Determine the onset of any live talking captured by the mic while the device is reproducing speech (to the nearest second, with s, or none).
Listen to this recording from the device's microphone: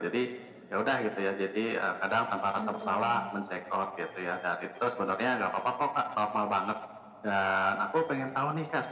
3 s